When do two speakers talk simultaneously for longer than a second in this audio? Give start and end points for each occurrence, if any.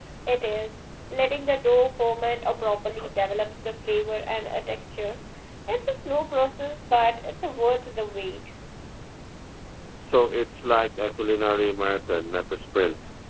none

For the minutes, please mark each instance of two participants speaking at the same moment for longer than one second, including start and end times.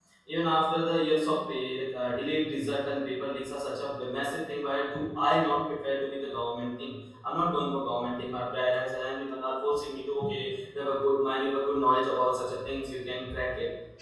none

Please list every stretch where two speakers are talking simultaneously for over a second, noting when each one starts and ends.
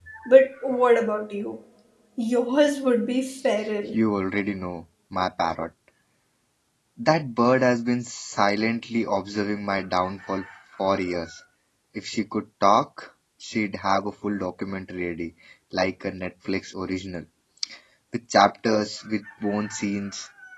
none

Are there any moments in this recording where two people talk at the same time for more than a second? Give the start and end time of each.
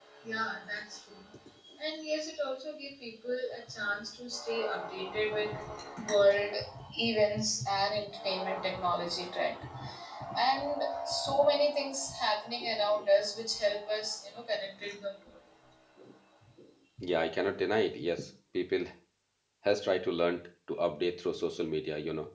none

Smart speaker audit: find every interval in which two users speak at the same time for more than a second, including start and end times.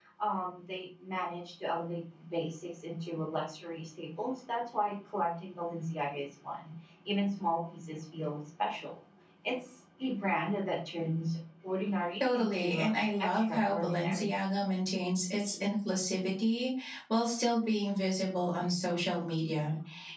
12.2-14.3

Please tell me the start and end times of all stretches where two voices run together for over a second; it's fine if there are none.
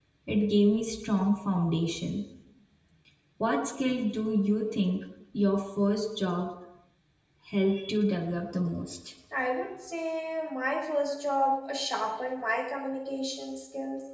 none

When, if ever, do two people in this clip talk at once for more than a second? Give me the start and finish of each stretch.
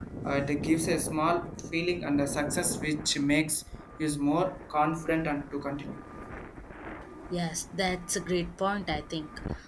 none

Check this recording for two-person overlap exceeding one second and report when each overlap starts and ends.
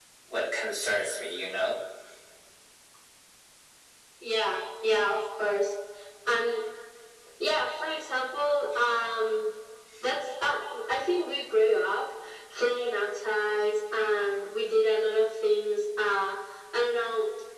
none

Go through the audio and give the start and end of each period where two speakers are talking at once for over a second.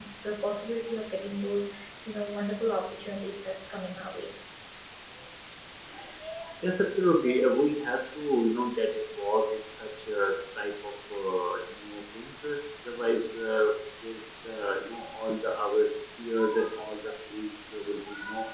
none

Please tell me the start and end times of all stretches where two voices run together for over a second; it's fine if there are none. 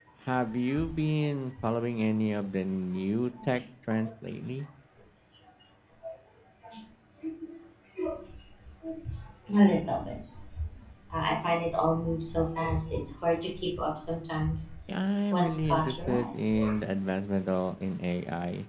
15.3-16.6

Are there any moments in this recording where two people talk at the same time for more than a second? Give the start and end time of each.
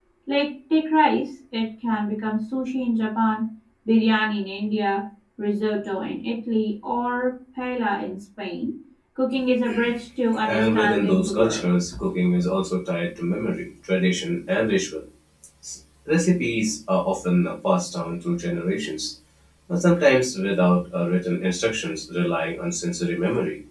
10.4-11.7

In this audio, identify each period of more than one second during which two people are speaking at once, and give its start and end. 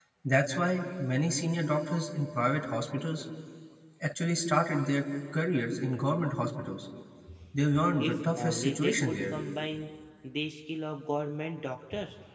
8.0-9.4

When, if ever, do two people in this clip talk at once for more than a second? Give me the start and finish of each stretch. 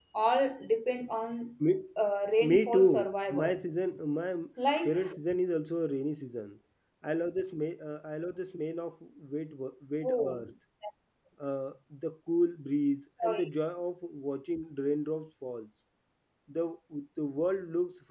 2.4-3.6

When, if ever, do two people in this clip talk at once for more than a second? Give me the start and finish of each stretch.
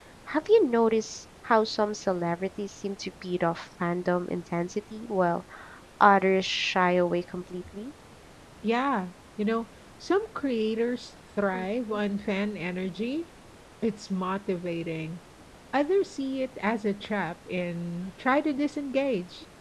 none

